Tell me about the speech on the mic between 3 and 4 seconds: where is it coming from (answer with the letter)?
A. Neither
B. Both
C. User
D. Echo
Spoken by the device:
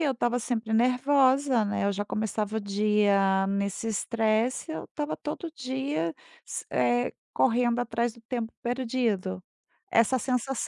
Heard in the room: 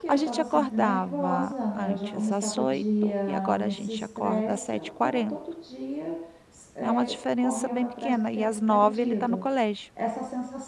B